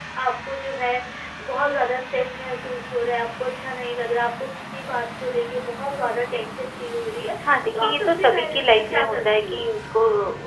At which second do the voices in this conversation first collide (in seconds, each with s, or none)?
7.7 s